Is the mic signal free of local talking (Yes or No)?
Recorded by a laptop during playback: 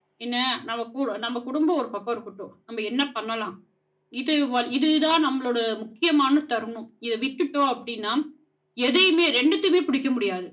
Yes